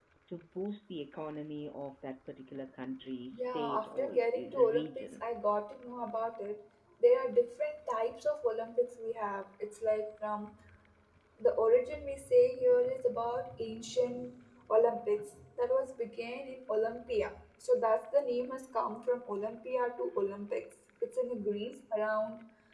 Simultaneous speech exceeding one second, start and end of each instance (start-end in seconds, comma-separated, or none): 3.3-5.1